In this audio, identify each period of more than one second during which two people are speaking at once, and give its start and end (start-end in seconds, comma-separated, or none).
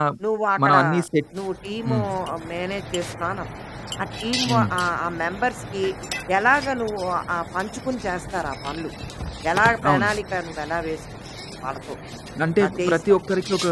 none